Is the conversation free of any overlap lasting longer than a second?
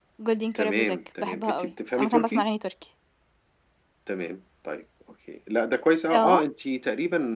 No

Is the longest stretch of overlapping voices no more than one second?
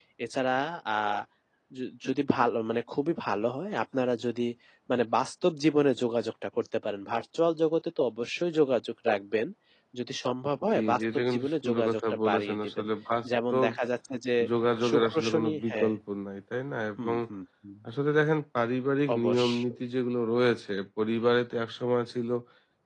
No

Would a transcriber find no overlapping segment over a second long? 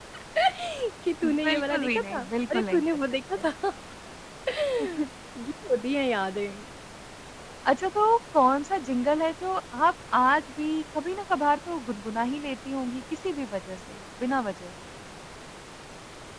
No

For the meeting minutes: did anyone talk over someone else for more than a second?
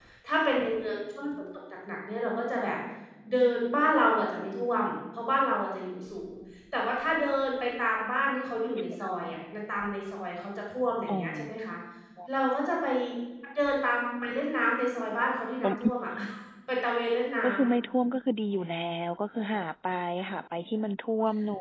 No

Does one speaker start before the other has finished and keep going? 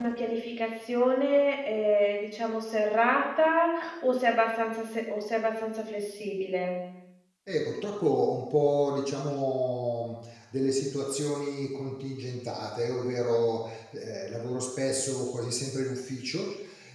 No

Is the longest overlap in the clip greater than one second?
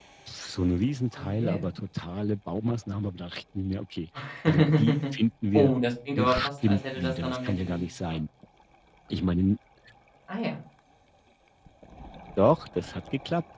Yes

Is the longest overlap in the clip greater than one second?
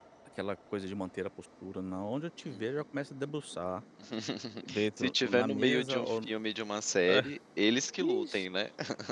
Yes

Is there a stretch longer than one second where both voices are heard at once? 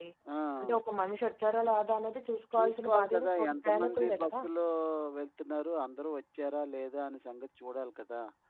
Yes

